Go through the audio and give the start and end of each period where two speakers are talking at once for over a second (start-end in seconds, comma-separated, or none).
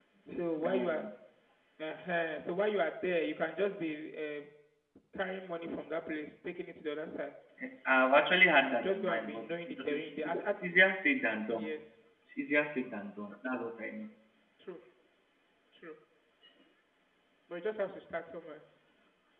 8.8-10.6